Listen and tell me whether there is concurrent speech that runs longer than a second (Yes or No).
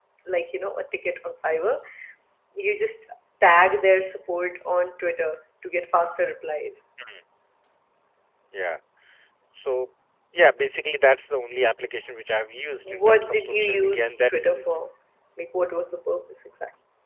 Yes